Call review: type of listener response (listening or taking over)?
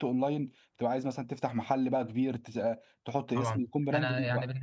taking over